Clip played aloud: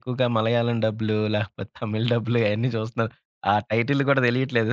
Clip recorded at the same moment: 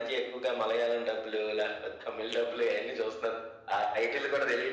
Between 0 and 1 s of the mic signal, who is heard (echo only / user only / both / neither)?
echo only